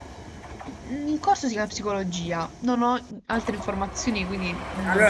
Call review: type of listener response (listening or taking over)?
taking over